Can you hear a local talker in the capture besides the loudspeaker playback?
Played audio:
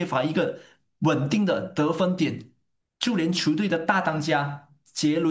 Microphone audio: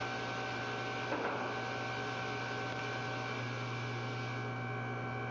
No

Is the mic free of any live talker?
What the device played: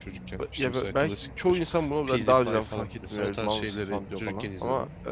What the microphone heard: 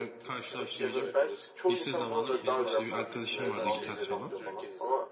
No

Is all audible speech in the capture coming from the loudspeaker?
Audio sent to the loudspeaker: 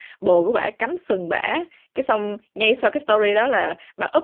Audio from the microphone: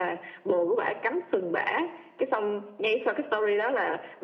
Yes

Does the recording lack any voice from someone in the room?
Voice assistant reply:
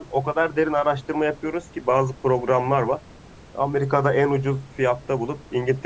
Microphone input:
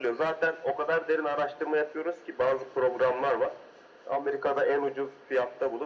Yes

